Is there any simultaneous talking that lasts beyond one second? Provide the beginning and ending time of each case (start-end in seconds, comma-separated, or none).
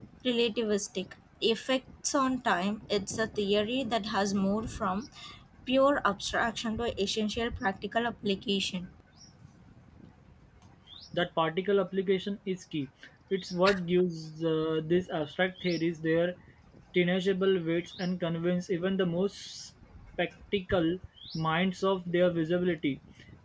none